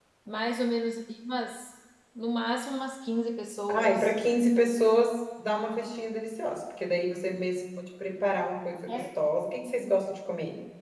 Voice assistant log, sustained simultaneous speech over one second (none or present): none